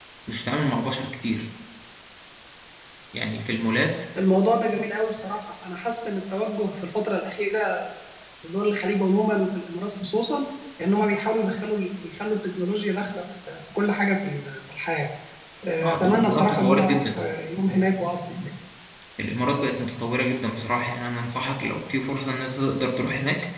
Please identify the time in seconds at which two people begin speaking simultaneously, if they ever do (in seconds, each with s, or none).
15.8 s